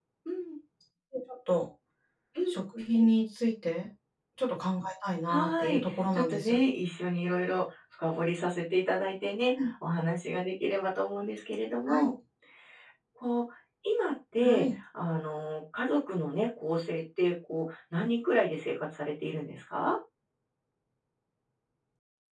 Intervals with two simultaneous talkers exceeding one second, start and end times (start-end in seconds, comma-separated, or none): 5.3-6.6